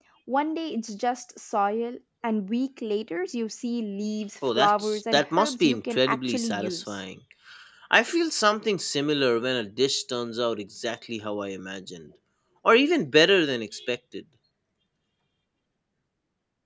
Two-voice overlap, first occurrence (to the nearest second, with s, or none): 4 s